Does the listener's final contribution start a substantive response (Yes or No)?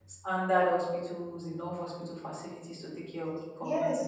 Yes